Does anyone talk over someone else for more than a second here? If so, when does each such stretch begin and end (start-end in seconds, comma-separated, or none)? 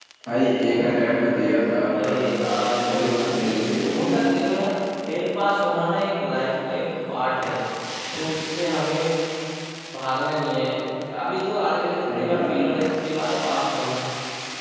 2.9-4.1